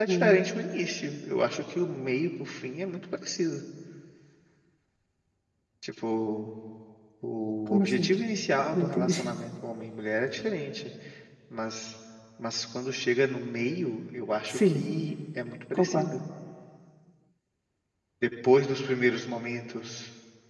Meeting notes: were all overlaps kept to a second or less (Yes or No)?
Yes